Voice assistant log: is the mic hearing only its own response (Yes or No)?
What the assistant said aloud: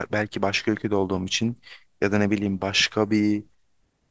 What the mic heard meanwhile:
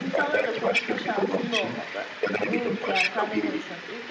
No